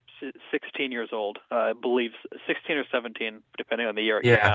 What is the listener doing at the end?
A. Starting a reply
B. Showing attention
A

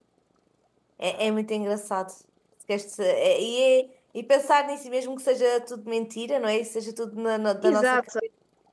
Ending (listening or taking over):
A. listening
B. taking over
B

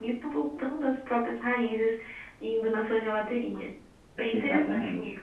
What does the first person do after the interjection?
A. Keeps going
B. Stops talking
B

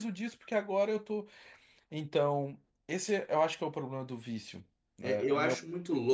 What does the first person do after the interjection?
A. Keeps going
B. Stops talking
B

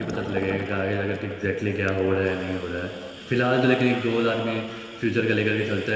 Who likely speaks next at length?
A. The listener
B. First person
B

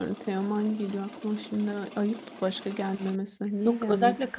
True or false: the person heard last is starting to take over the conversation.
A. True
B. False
A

